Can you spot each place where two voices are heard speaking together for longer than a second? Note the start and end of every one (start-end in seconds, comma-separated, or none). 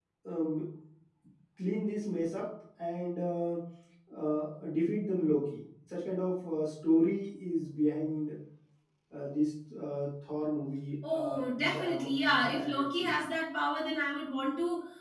11.1-13.2